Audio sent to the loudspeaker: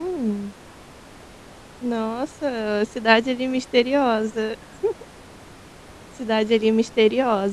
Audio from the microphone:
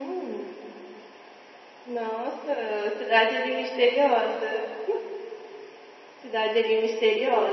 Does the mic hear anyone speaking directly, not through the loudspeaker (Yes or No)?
No